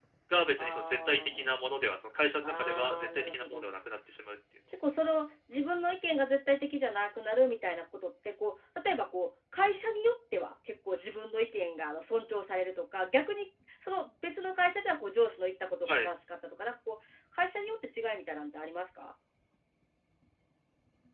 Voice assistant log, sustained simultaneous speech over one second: present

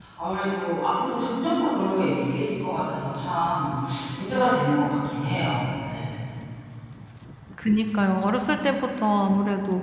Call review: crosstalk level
none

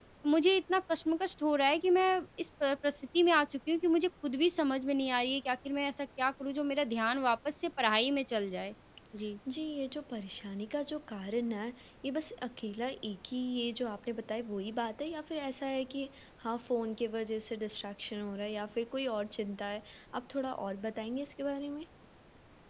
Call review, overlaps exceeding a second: none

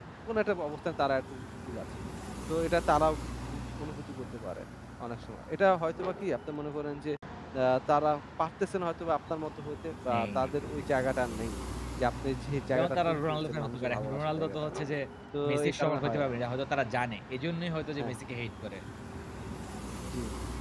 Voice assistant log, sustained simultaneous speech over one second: present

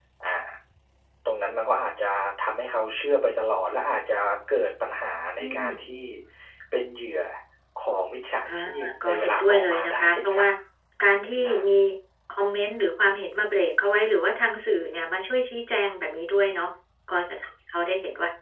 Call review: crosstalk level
present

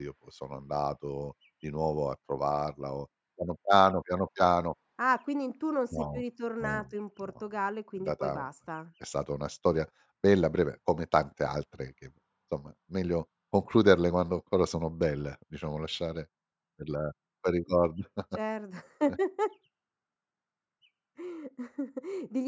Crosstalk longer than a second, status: none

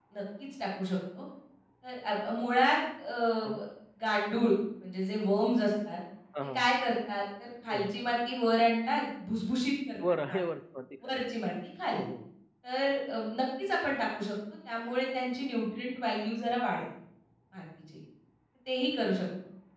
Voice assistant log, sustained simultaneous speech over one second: none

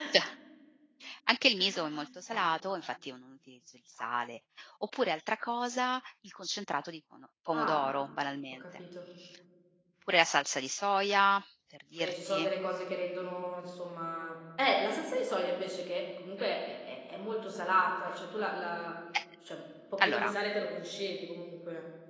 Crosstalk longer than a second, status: none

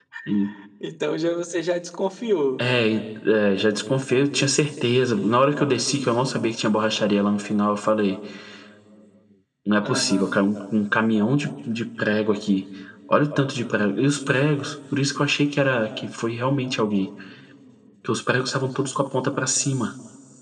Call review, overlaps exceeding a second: none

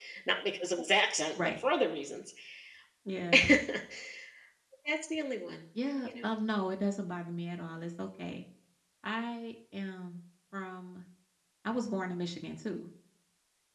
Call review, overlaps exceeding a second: none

